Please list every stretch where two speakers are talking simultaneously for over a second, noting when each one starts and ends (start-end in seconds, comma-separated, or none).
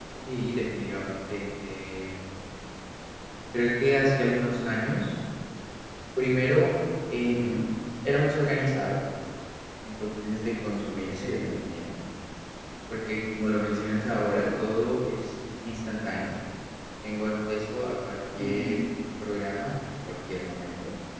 none